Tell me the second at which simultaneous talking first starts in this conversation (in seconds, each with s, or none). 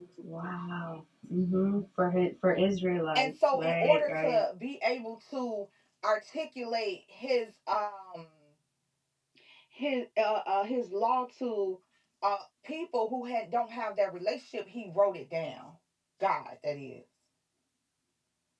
3.2 s